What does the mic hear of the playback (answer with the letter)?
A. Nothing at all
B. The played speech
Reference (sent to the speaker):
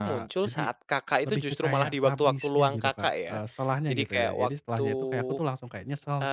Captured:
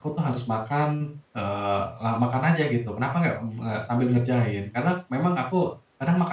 A